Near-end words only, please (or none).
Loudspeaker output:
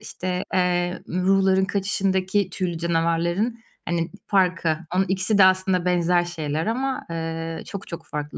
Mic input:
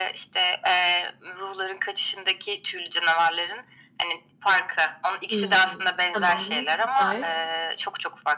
Hımm, tamam. Süper.